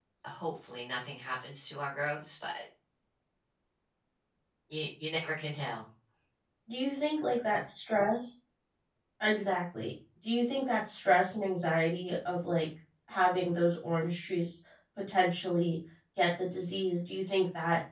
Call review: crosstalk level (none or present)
none